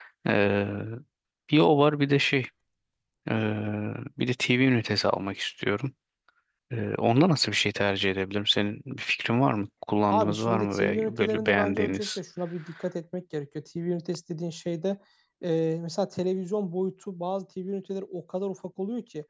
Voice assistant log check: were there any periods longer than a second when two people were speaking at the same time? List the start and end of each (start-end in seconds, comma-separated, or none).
10.1-12.2